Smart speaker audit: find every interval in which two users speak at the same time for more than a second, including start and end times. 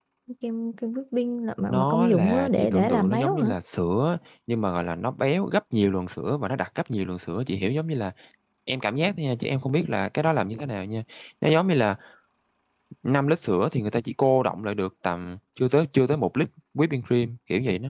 1.7-3.5

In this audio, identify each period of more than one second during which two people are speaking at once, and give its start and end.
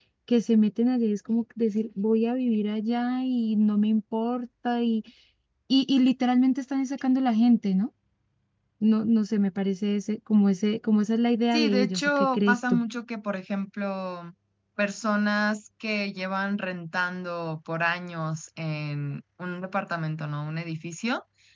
11.5-12.8

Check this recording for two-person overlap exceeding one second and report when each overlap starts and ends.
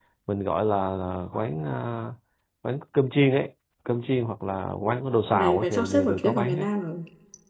5.3-6.7

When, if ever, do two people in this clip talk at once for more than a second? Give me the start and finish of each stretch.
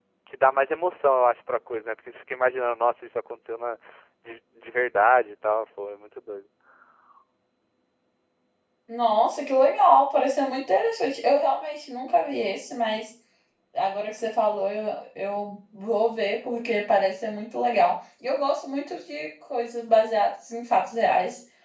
none

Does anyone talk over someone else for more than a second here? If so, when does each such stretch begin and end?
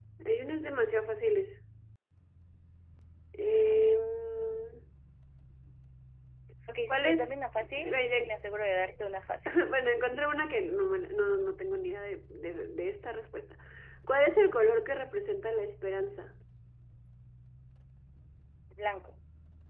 6.9-8.4

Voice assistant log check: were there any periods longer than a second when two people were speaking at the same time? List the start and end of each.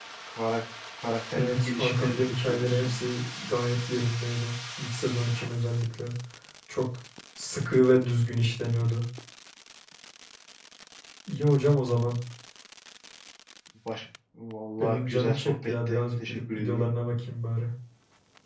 1.4-3.0, 14.8-16.9

